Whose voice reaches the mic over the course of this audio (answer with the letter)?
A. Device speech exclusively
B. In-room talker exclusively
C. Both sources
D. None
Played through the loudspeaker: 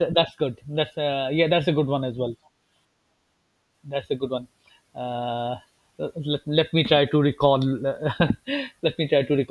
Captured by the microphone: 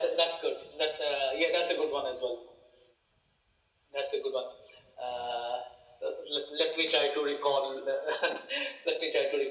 A